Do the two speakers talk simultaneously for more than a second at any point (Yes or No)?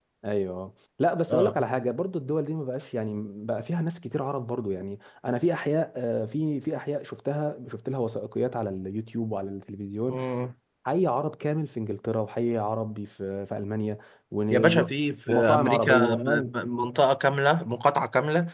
Yes